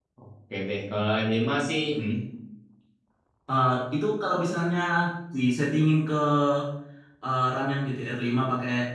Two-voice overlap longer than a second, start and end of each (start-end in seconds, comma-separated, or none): none